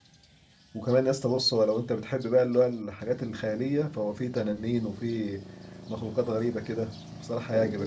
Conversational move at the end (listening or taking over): taking over